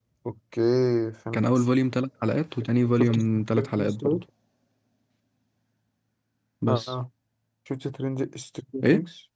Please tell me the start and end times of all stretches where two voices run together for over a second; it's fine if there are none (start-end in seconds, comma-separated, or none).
3.0-4.2